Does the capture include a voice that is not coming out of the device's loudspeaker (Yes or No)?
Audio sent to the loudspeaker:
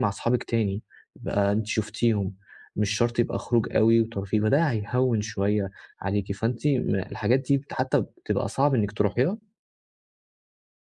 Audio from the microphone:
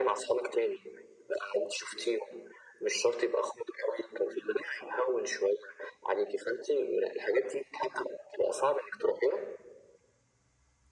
No